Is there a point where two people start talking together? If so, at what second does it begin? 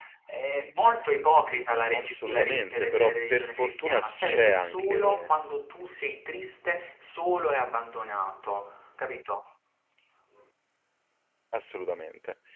1.9 s

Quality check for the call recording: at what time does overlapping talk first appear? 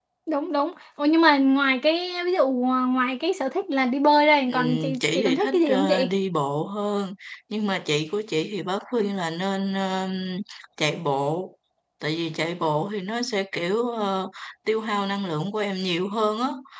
4.5 s

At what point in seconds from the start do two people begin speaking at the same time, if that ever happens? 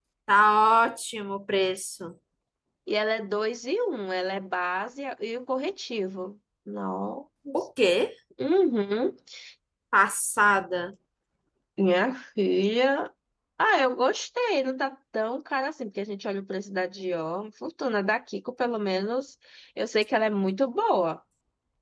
none

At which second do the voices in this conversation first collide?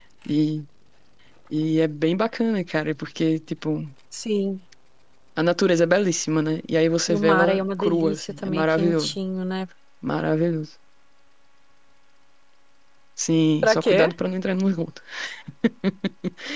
7.1 s

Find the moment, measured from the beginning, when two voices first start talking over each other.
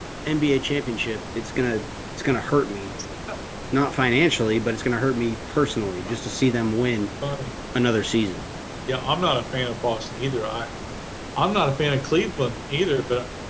none

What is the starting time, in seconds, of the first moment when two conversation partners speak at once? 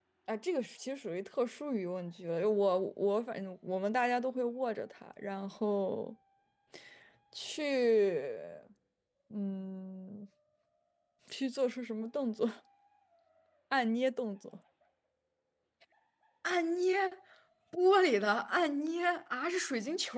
none

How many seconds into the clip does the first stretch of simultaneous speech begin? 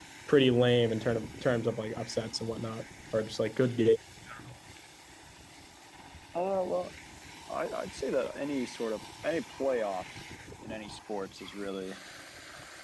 none

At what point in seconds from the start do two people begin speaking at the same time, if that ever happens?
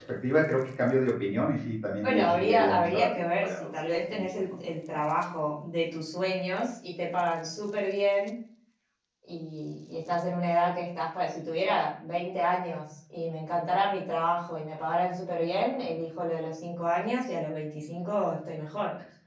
2.0 s

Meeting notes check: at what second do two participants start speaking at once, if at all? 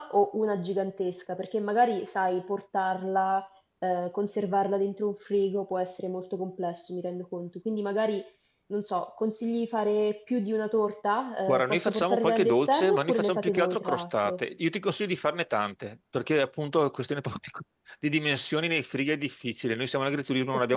11.5 s

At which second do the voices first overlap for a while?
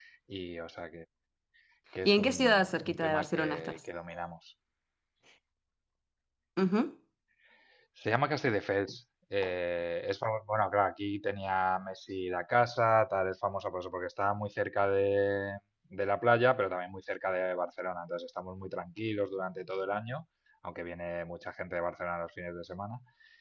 2.0 s

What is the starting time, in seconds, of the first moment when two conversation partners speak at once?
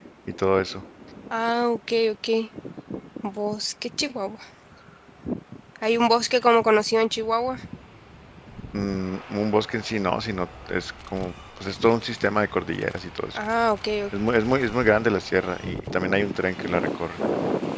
none

